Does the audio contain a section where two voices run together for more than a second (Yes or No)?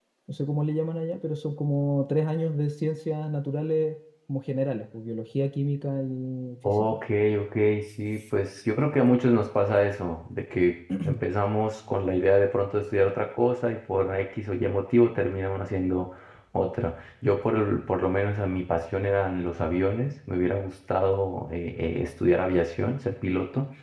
No